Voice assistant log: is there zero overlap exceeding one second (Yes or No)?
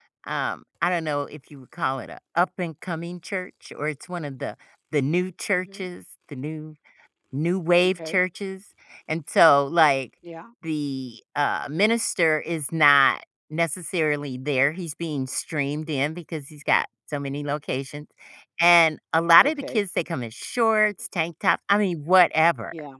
Yes